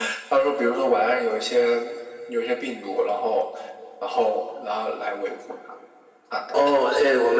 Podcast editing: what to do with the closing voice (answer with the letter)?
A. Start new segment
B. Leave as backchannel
A